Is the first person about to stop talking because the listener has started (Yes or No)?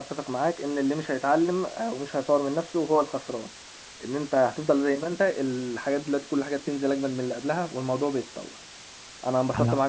No